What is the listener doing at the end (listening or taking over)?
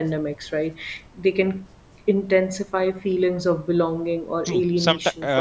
taking over